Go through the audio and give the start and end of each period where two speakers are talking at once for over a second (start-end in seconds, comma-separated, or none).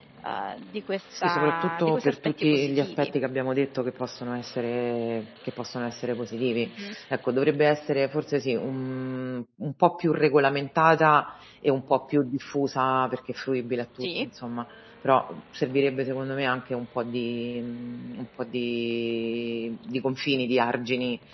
1.2-3.1